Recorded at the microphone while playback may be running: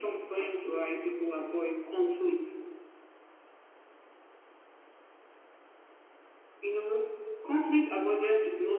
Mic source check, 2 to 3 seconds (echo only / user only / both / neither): echo only